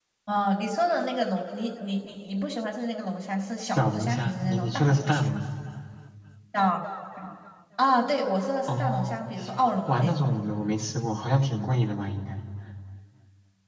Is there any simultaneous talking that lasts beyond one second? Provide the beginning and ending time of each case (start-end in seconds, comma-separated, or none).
3.7-5.2